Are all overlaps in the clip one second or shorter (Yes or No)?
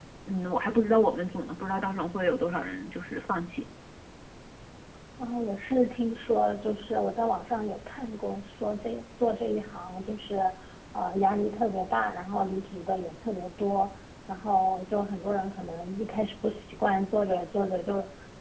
Yes